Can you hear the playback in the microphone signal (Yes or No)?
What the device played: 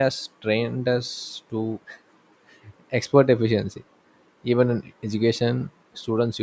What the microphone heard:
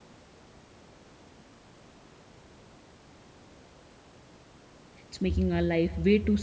No